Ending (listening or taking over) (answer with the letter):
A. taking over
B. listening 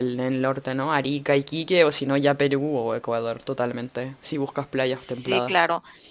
A